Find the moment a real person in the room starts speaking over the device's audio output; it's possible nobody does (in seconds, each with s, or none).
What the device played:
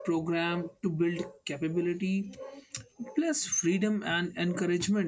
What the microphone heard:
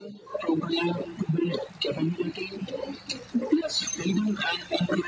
none